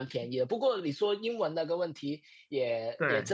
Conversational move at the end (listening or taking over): listening